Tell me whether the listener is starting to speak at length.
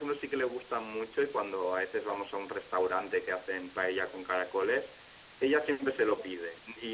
No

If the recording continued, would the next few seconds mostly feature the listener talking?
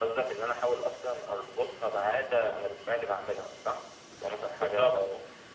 No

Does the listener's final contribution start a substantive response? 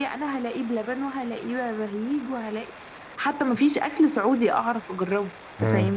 Yes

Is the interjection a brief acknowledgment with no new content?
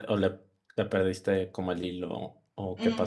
No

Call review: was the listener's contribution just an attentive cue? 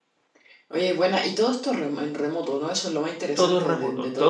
No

